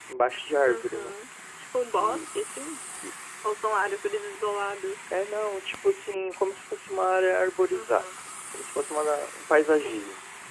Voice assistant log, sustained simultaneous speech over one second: none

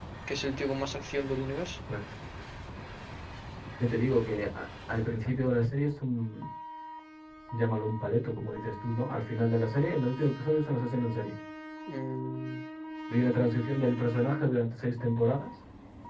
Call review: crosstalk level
none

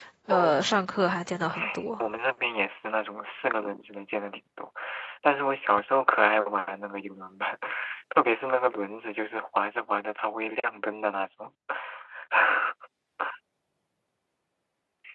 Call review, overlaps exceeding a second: none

